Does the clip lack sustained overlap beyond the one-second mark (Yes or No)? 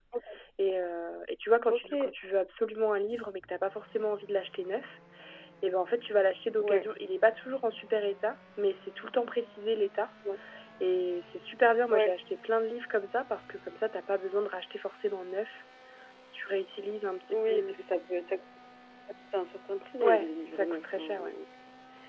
No